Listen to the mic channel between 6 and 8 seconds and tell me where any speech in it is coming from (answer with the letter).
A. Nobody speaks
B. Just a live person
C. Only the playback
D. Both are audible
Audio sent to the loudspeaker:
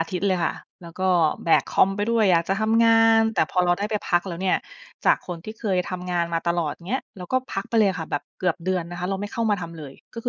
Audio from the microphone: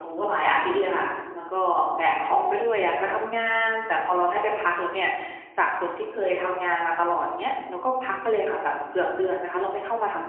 C